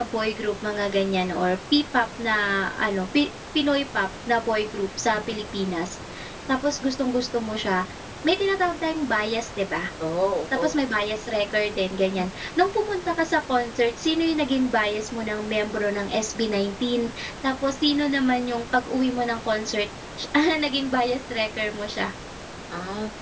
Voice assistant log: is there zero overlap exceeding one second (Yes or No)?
Yes